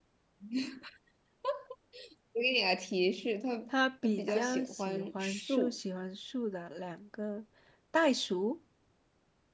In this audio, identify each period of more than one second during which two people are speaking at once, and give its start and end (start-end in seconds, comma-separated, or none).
4.0-5.8